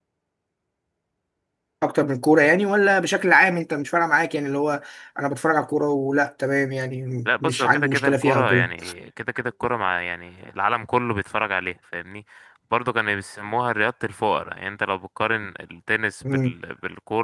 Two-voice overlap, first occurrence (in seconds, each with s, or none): 7.3 s